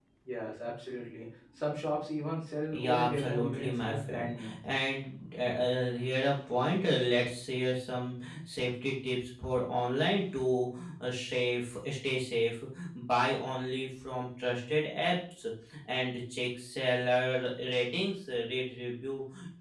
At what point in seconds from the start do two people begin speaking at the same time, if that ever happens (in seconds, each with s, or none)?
2.7 s